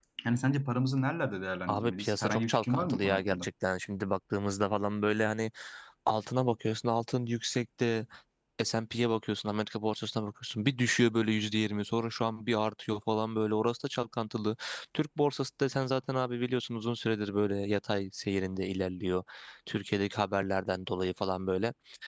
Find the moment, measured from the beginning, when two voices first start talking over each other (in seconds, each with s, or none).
1.7 s